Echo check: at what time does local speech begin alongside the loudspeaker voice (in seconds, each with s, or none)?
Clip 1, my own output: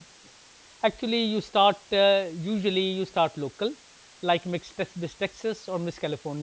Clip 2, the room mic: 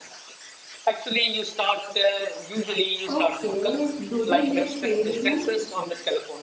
3.1 s